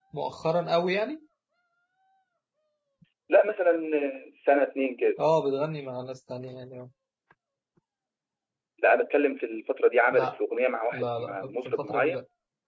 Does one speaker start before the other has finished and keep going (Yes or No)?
Yes